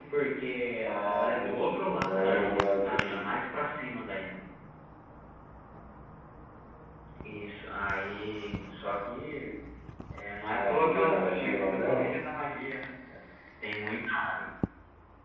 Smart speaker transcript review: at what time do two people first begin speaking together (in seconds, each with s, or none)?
0.8 s